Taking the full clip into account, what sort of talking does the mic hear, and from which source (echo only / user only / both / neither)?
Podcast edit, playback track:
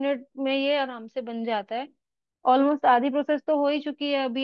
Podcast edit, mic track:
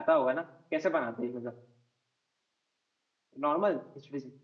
user only